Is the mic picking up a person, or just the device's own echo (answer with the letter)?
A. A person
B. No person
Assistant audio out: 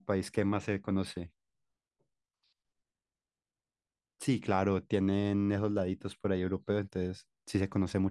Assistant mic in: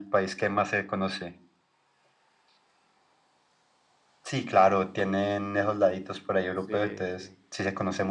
A